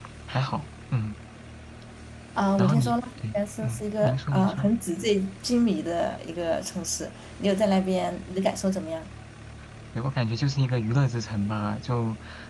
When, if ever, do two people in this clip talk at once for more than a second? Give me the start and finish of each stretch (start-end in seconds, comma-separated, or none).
2.6-4.7